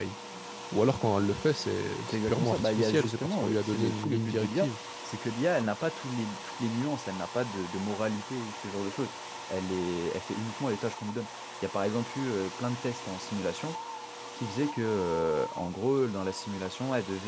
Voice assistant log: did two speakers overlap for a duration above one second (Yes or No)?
Yes